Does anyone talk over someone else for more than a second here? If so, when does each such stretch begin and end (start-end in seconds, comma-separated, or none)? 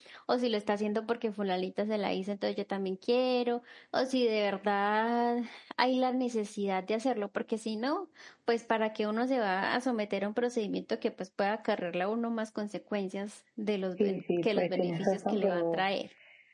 14.0-15.8